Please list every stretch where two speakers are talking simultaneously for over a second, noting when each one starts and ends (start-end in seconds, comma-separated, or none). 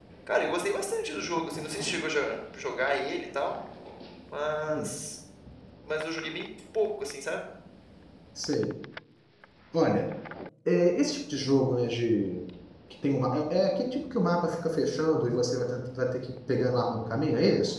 none